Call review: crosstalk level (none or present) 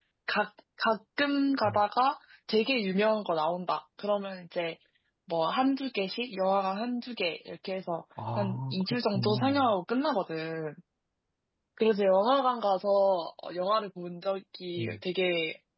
present